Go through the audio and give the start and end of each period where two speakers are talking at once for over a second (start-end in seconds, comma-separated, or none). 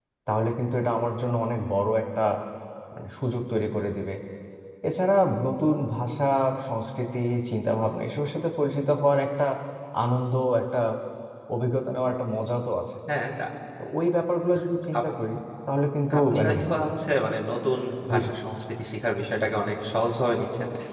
none